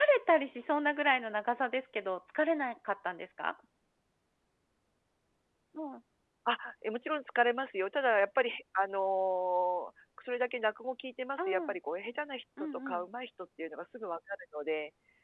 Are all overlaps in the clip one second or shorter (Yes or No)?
Yes